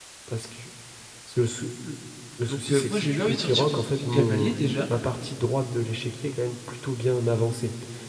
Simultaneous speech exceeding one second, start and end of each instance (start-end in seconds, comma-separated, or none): 2.5-4.8